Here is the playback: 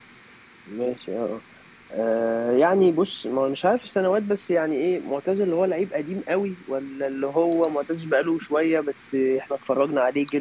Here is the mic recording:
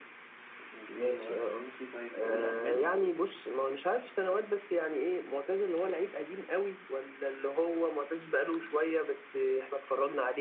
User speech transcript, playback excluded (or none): مش إنجليزي ولا فرنسي طيب نقول ألماني